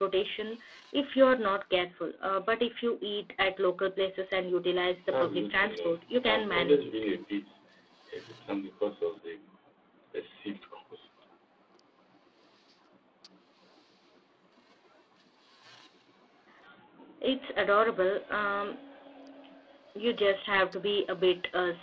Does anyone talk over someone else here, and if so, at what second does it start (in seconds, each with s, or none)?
5.1 s